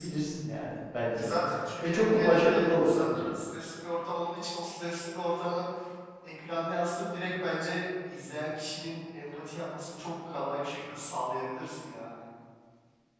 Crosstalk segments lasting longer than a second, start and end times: 1.8-3.3

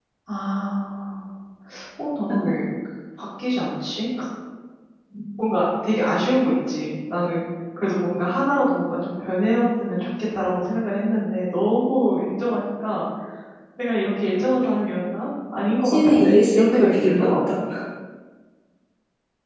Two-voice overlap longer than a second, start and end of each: 15.8-17.6

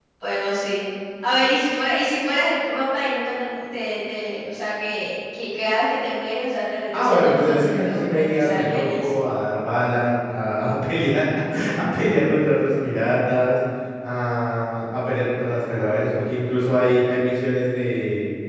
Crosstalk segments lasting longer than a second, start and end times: 6.9-9.1

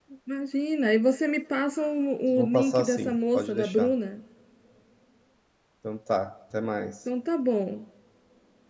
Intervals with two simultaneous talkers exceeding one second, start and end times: 2.3-3.9

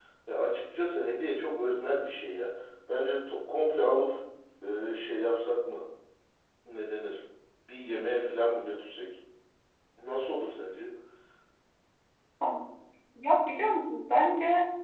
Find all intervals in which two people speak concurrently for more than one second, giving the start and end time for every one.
none

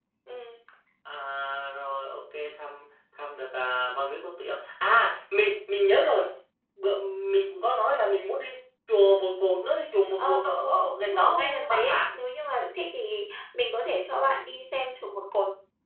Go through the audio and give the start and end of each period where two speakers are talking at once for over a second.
10.2-12.0

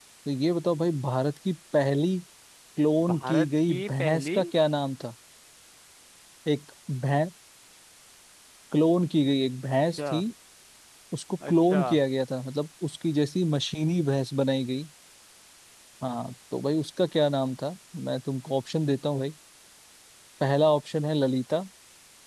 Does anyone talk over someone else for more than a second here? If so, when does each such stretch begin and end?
3.1-4.4

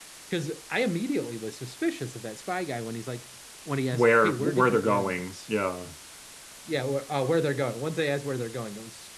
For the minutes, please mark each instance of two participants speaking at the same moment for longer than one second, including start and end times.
3.9-5.3

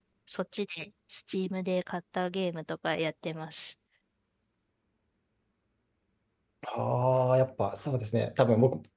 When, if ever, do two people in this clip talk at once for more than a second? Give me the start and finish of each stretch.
none

